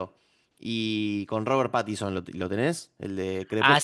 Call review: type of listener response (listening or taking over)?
taking over